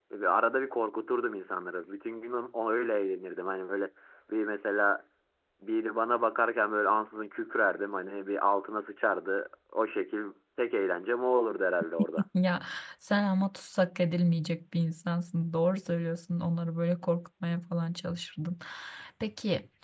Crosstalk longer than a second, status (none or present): none